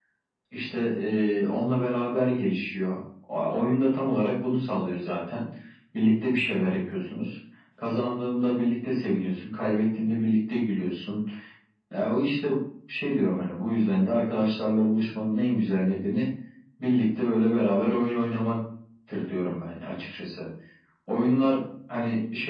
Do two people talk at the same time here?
No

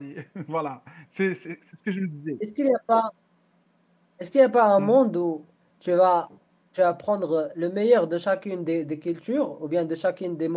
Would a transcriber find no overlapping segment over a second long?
Yes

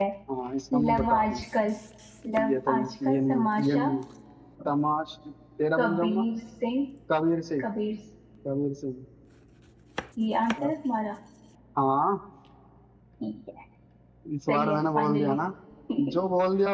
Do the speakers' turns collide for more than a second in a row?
Yes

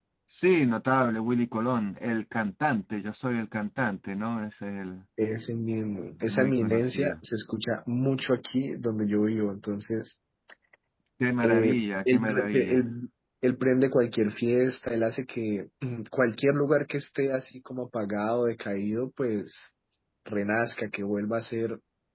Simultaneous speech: Yes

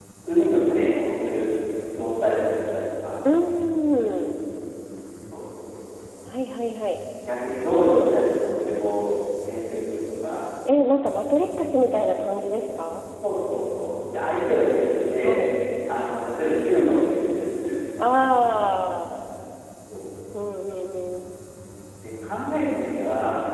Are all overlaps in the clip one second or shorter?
Yes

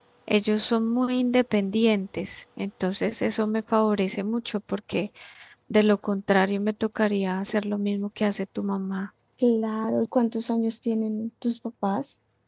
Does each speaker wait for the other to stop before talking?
Yes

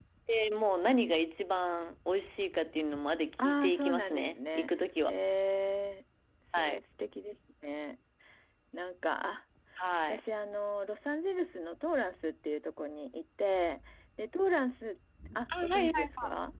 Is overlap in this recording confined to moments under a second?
No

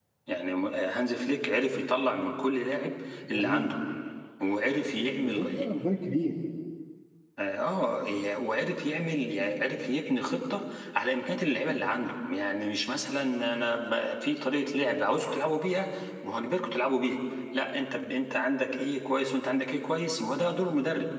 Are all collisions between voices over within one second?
Yes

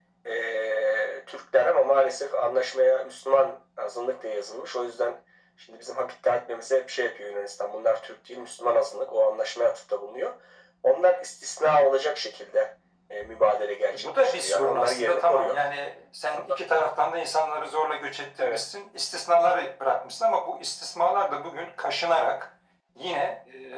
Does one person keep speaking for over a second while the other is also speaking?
Yes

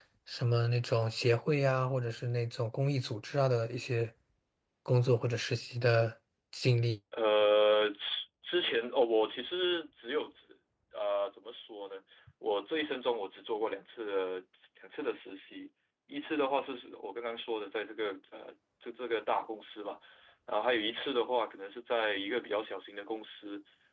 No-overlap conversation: Yes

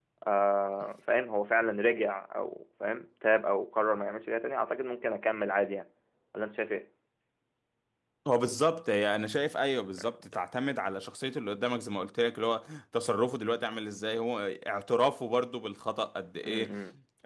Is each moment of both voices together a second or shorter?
Yes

